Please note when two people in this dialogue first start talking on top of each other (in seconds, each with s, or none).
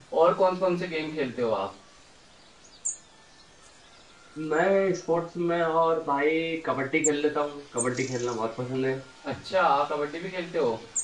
none